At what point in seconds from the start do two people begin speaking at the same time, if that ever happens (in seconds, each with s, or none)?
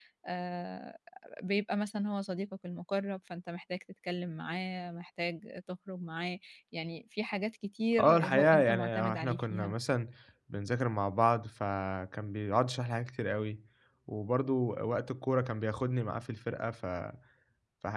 8.0 s